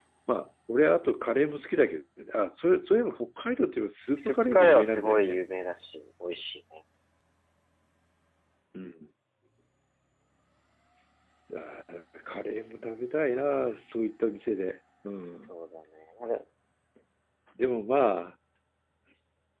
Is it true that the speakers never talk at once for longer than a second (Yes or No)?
No